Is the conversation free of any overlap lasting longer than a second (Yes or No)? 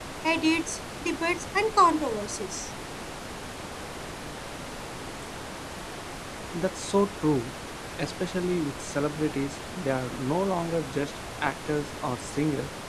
Yes